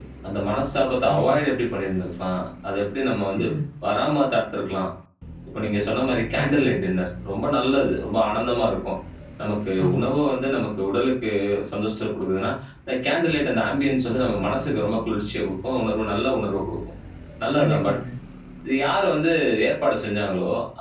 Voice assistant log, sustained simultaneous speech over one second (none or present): none